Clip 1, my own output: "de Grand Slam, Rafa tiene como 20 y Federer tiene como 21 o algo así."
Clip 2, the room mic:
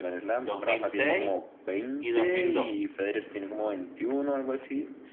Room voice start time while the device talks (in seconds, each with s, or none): 0.4 s